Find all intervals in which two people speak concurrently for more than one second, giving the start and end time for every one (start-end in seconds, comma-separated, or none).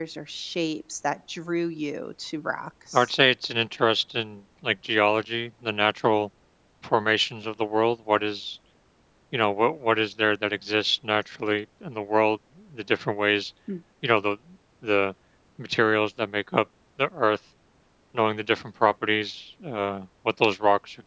none